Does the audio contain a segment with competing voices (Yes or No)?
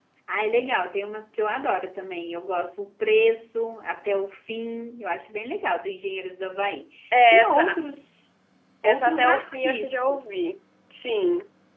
Yes